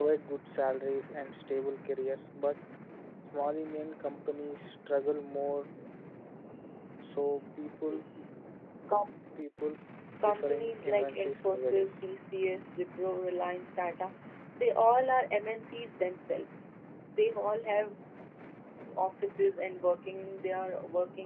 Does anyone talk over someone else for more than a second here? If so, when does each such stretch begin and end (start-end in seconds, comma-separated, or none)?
10.2-11.9